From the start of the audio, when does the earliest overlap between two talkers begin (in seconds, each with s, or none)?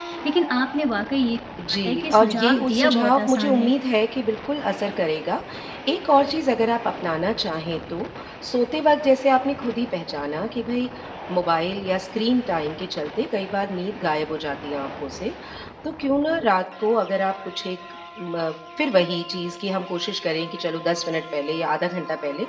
1.6 s